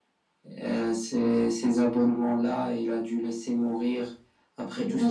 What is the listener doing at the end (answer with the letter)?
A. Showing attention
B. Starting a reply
A